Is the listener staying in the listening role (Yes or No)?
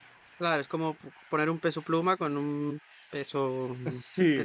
No